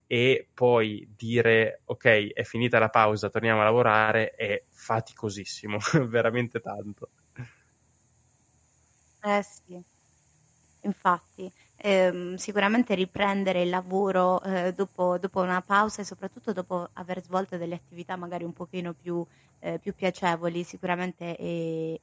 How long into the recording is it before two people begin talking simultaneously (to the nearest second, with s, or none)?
none